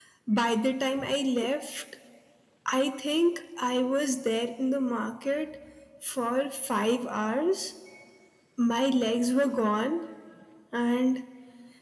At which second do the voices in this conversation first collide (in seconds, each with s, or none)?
none